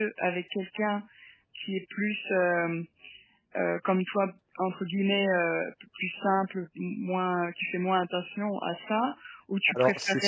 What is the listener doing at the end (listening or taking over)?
taking over